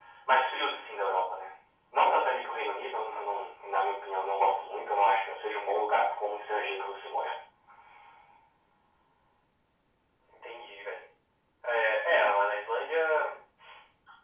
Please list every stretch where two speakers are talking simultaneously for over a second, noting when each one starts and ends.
none

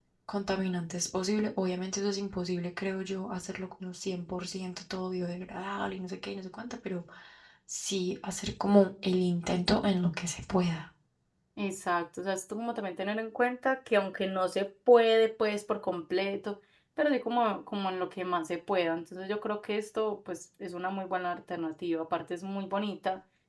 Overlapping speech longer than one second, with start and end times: none

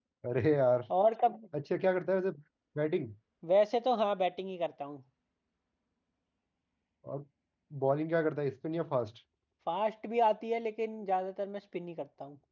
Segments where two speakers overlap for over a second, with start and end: none

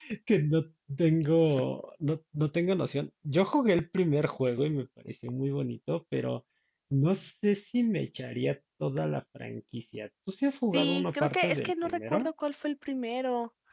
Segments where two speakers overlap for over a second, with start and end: 10.6-12.3

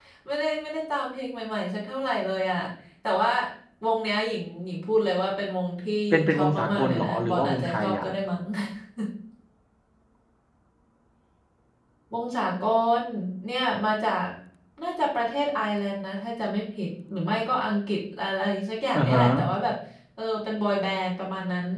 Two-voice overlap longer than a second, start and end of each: 6.1-8.0

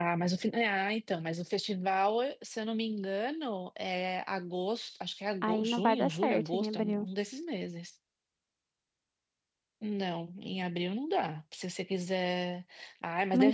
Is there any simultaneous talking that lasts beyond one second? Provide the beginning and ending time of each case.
5.4-7.1

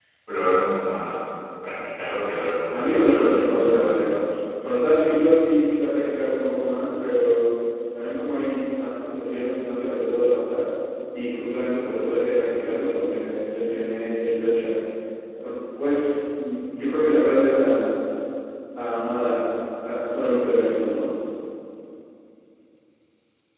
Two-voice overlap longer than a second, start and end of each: 2.7-4.2

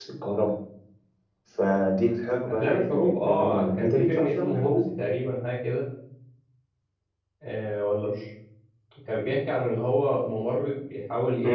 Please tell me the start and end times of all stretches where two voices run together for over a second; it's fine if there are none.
2.5-4.9

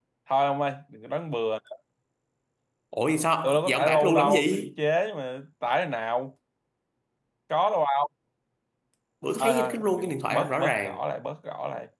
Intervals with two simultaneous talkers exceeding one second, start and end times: 3.4-4.7, 9.4-11.0

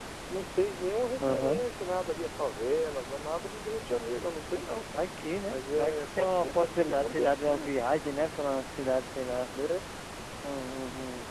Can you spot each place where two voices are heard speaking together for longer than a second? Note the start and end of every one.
5.5-7.7

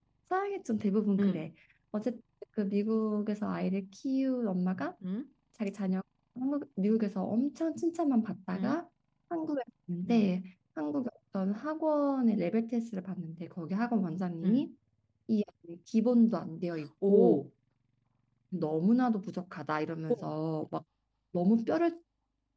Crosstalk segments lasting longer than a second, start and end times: none

